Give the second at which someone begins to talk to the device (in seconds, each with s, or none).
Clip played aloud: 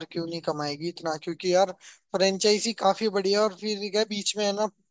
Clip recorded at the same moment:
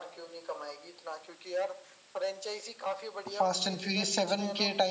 3.3 s